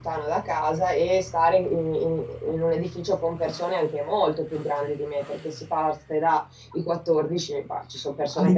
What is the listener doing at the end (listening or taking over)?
taking over